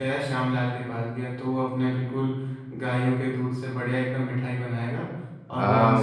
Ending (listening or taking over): taking over